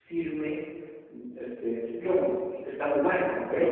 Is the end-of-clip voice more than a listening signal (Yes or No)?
Yes